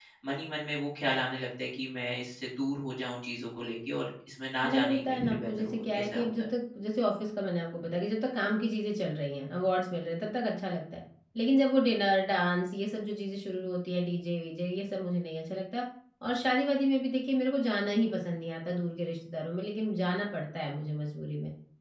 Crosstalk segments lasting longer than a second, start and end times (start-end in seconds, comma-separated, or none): 4.6-6.5